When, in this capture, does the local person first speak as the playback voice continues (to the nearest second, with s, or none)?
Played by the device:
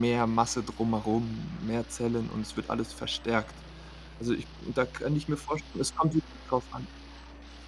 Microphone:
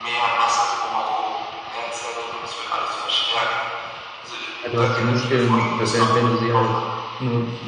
5 s